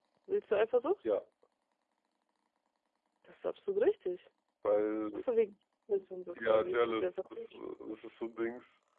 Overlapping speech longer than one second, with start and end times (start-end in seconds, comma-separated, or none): 6.3-7.7